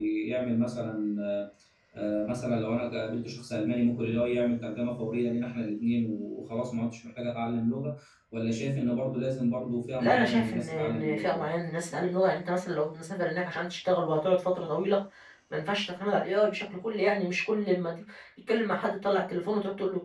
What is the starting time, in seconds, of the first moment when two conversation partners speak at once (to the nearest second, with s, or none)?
10 s